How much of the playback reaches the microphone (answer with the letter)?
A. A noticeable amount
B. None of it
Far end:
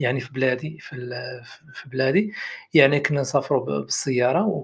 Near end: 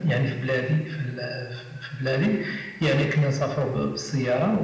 A